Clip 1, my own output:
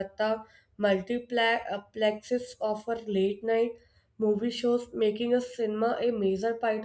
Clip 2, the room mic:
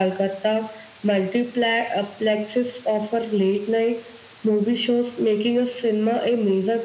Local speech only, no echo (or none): none